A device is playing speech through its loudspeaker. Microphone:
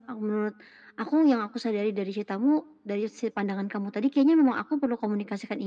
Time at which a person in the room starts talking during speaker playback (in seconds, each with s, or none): none